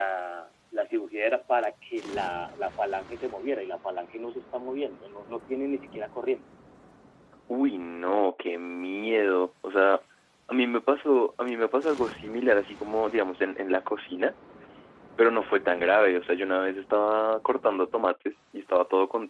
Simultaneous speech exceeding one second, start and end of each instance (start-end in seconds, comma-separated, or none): none